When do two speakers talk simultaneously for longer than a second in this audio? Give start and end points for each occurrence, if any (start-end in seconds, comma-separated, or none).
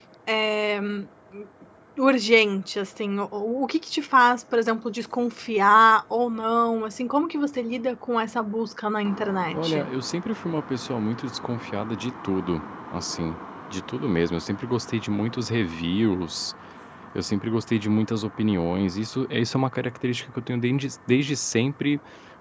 none